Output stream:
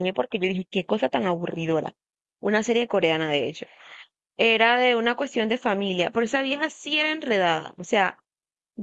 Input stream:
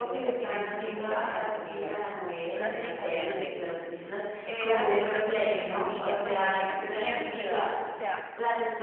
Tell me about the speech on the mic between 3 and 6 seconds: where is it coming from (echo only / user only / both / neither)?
both